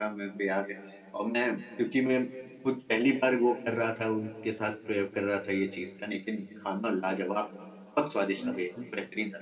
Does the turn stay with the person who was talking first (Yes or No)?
Yes